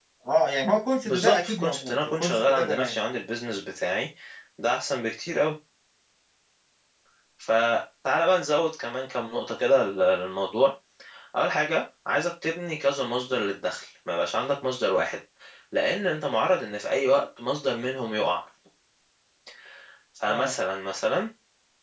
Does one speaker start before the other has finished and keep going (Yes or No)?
Yes